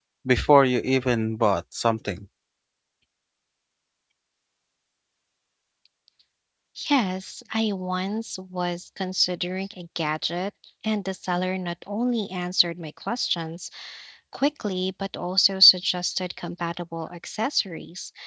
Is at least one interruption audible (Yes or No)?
No